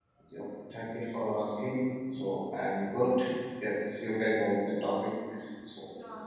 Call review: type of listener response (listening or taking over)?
taking over